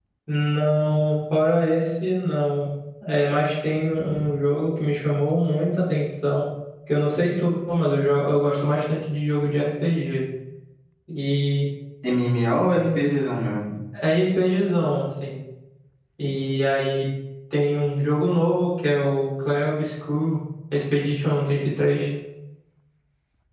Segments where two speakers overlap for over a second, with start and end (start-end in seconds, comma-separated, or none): none